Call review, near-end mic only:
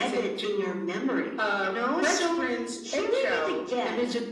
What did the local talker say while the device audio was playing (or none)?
none